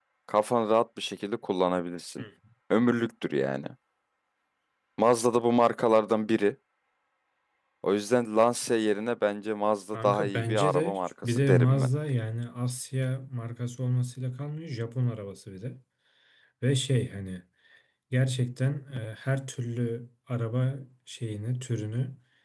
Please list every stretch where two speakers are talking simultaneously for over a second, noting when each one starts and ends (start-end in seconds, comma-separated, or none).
9.9-11.9